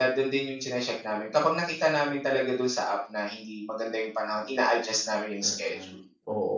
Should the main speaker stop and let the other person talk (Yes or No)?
Yes